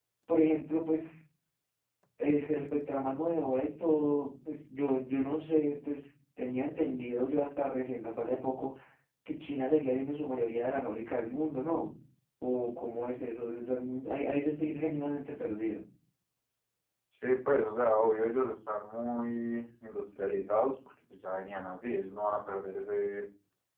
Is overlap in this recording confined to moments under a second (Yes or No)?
Yes